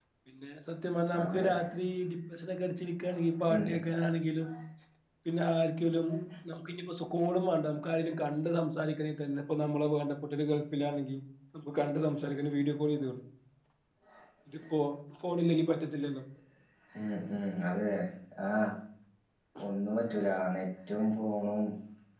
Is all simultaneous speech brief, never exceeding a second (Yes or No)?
Yes